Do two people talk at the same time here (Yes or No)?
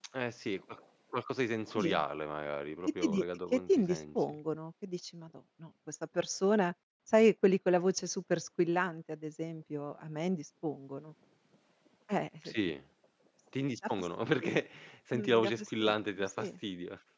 Yes